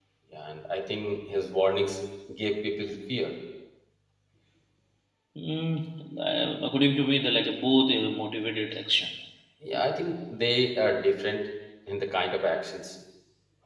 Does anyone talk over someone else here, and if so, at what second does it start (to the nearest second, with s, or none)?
none